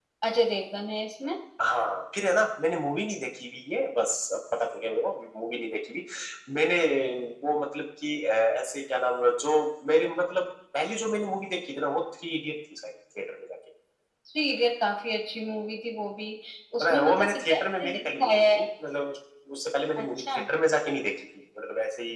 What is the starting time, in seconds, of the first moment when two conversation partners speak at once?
16.8 s

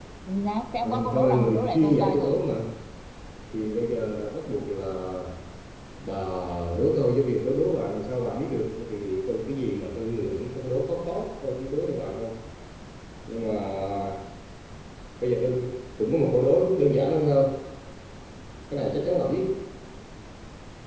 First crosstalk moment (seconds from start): 0.8 s

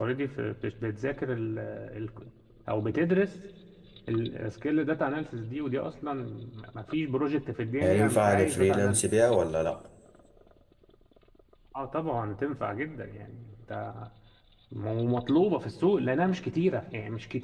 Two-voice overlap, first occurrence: 7.8 s

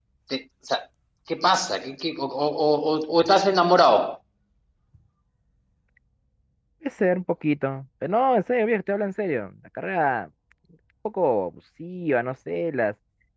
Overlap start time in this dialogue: none

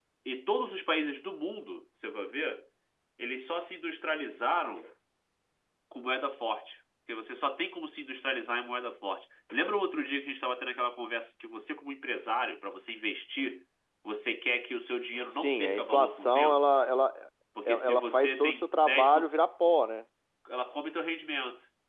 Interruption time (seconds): 15.3 s

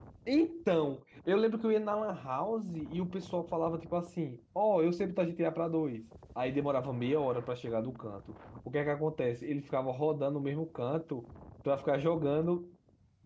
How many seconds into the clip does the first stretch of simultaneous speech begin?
none

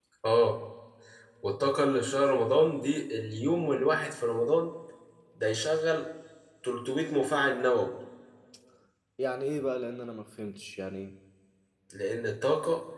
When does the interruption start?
none

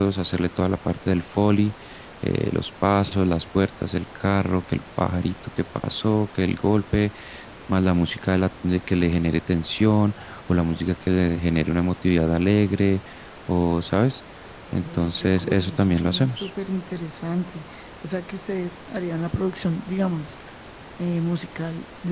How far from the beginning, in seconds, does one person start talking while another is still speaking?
14.7 s

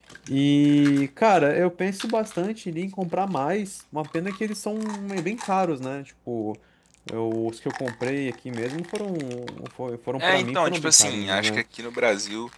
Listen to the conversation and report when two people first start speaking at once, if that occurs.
10.2 s

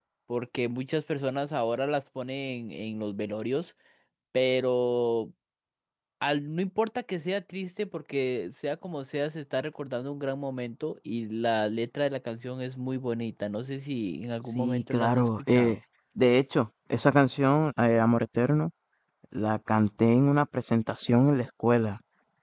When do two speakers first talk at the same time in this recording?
14.6 s

